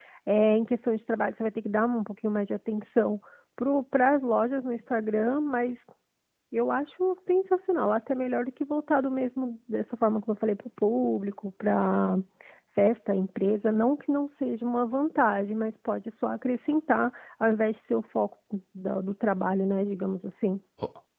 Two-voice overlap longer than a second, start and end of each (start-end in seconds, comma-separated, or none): none